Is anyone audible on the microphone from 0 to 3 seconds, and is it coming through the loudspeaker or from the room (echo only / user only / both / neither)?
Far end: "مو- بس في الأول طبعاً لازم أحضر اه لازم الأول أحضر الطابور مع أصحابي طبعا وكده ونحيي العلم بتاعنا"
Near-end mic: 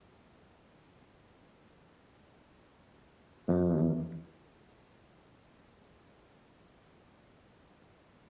neither